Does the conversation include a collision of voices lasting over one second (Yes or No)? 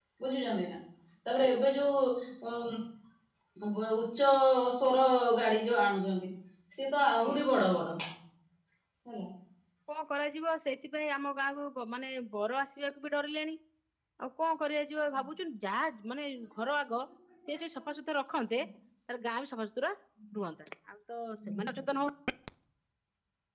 No